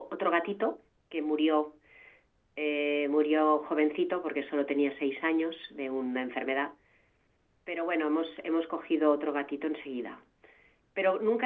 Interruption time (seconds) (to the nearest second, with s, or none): none